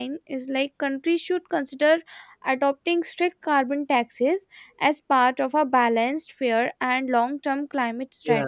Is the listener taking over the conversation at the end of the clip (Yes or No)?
Yes